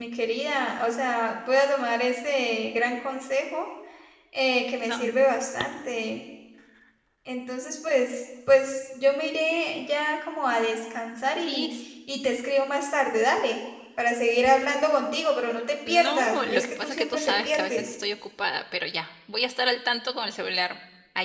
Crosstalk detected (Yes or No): Yes